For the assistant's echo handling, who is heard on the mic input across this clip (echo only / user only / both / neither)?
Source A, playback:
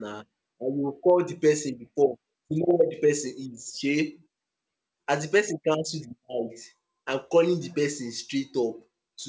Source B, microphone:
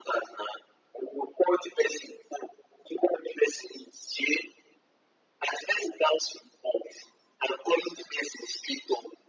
echo only